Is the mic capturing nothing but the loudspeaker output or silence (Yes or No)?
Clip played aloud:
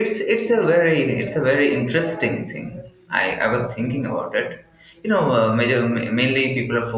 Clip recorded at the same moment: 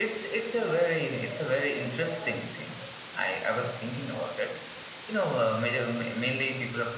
Yes